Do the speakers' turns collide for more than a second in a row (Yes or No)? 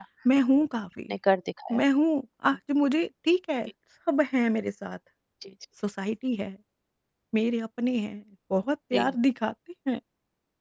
No